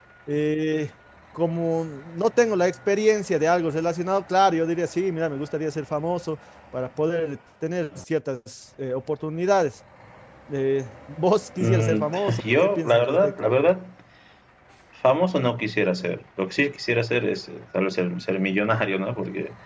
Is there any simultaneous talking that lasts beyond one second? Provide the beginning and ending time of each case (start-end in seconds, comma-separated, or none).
11.6-13.3